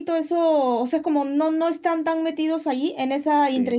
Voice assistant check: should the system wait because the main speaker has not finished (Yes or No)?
Yes